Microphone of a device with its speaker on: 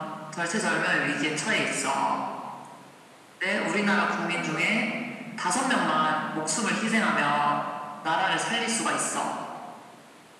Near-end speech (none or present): present